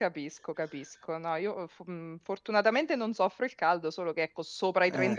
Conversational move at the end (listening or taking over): listening